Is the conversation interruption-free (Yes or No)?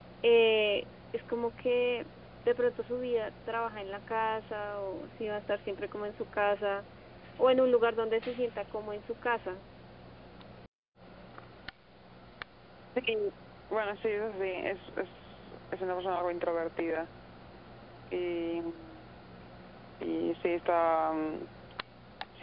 Yes